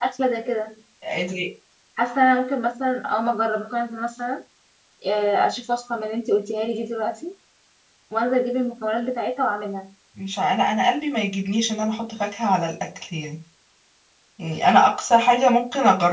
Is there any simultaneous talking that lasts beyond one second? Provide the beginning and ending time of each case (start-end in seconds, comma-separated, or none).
none